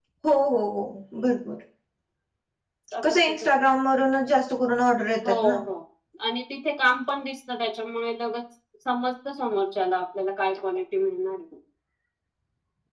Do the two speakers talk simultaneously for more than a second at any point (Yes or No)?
No